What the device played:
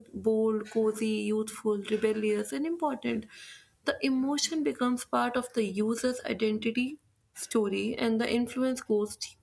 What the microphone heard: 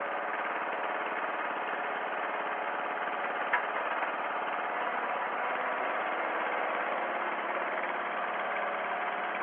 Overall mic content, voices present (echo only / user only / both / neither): neither